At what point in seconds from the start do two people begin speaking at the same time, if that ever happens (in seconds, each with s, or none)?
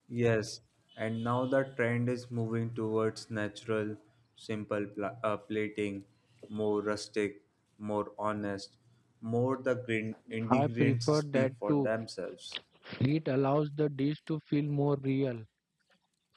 10.5 s